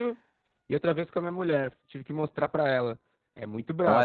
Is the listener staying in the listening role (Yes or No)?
No